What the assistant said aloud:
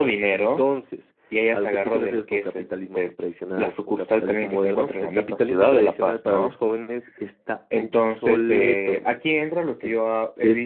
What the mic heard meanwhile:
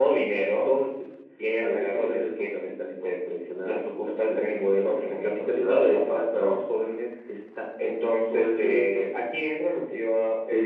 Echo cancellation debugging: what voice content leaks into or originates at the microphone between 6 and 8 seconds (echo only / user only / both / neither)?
echo only